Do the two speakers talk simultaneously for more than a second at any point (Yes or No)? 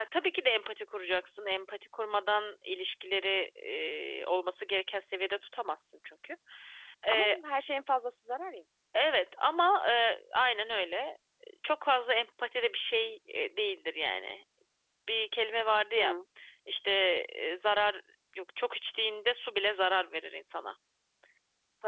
No